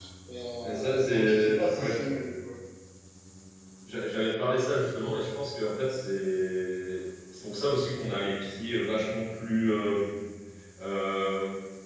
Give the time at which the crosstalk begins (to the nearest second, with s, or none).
1 s